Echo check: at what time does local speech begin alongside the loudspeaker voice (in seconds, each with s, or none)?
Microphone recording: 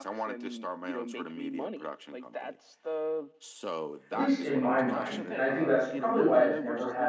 4.1 s